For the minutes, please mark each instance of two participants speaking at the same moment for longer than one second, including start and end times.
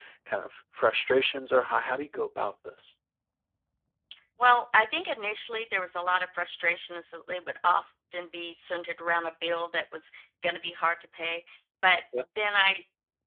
none

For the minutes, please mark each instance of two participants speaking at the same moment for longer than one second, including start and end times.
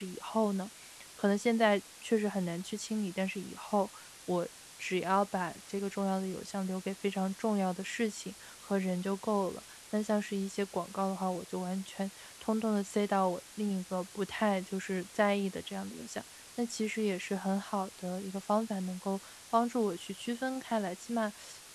none

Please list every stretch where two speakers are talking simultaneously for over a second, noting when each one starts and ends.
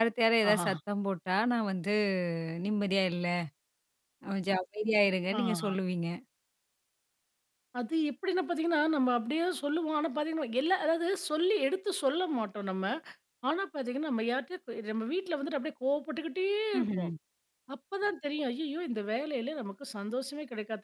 none

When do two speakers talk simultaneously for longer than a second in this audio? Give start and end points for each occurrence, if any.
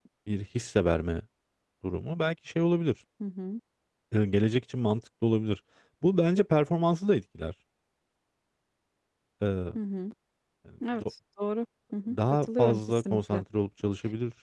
12.1-13.4

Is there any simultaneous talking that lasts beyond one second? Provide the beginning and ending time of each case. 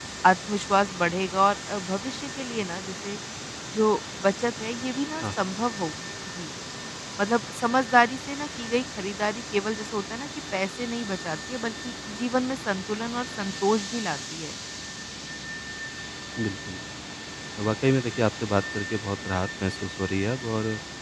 none

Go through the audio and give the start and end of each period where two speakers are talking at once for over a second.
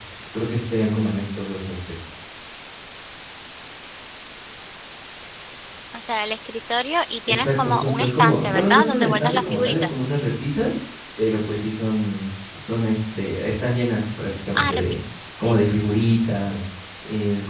7.3-10.0

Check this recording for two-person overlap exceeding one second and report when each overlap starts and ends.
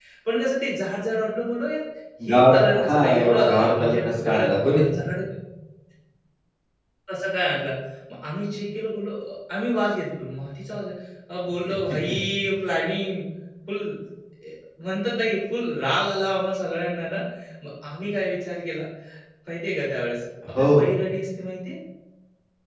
2.3-4.8

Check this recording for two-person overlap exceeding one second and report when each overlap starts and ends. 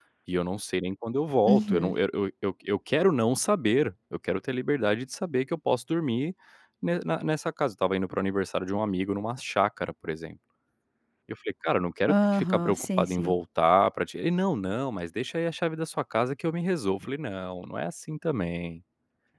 12.1-13.3

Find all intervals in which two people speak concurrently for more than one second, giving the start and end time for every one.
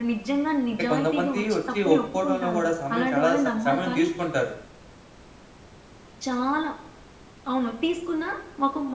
0.7-4.1

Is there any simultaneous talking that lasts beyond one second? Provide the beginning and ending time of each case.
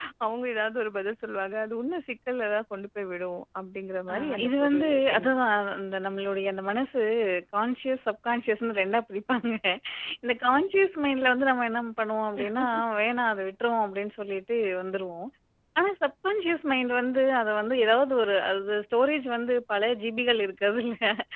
4.1-5.4

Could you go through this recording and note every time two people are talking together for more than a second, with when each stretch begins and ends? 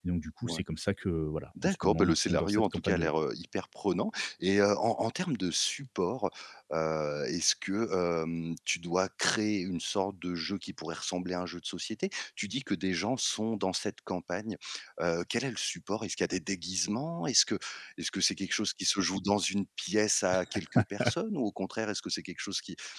1.6-3.1

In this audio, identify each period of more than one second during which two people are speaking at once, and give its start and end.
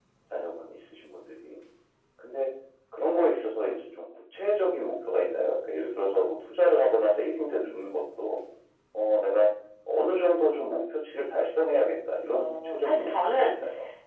12.3-13.6

